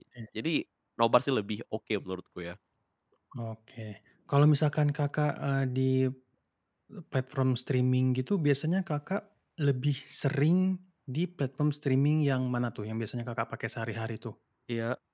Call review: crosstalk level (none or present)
none